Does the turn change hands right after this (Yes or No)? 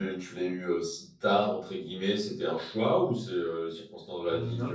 No